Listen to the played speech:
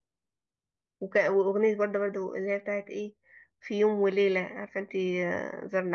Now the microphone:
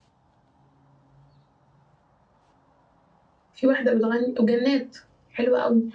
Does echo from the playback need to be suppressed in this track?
No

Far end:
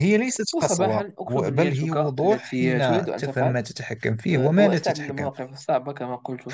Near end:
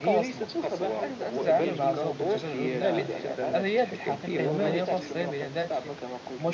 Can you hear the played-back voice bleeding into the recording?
Yes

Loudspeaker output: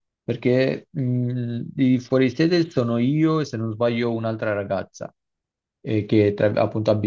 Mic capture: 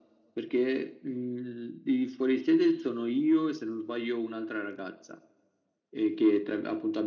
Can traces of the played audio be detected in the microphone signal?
Yes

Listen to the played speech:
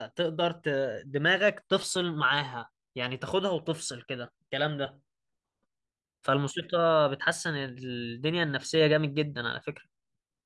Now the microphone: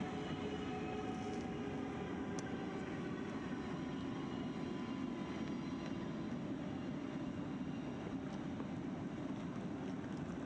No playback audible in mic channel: Yes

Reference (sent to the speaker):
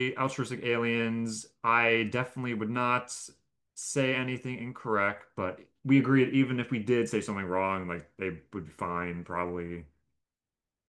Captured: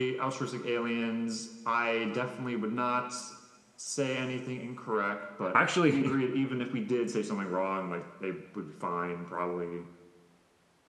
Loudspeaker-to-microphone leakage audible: Yes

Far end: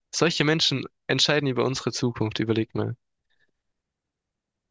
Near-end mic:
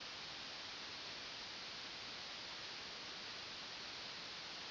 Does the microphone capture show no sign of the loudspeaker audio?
Yes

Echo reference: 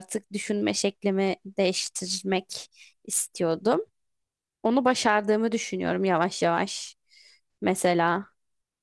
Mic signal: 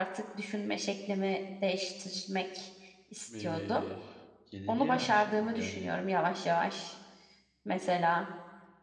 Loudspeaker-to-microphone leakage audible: Yes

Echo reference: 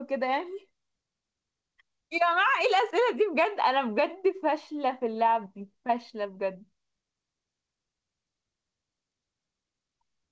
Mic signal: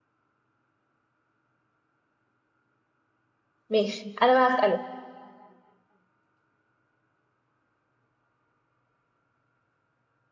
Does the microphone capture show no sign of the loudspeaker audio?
Yes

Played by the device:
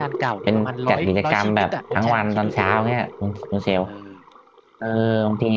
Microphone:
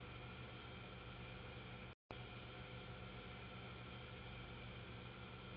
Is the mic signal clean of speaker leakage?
Yes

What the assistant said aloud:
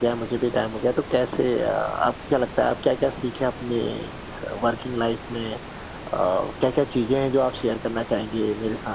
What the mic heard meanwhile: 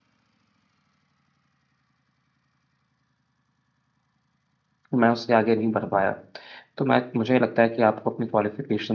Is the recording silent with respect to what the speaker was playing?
Yes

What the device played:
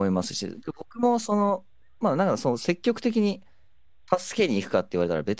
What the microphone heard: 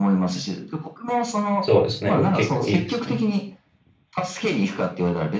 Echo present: Yes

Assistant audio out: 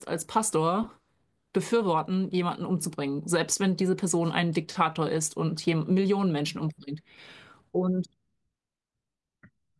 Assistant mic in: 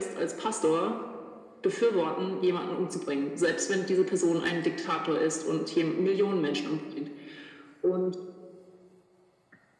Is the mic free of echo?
No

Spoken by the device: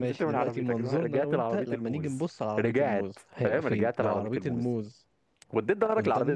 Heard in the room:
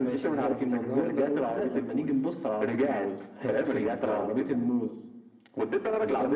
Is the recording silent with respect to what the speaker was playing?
No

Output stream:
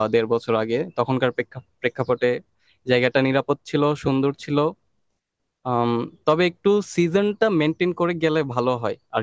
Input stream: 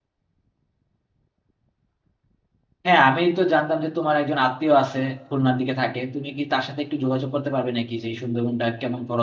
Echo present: No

